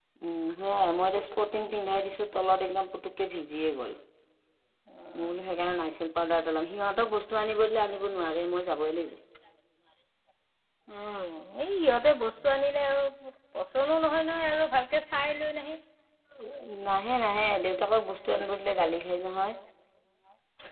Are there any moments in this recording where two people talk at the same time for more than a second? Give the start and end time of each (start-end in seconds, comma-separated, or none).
none